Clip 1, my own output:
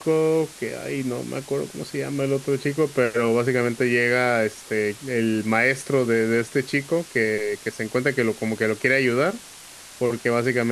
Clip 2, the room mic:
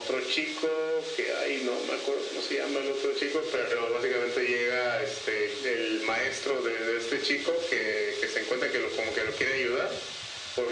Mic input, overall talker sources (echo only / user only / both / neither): echo only